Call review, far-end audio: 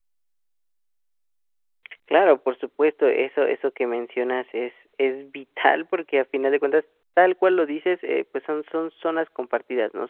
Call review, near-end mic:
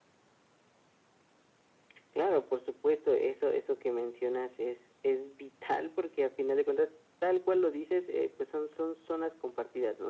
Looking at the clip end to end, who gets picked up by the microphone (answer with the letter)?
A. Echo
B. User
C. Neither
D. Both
A